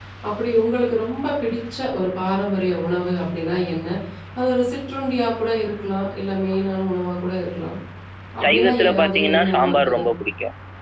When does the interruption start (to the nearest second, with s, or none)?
8 s